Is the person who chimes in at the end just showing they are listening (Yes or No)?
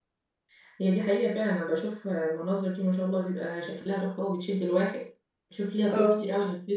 Yes